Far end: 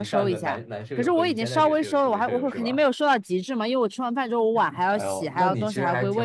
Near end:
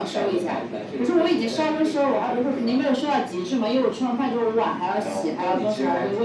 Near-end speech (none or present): none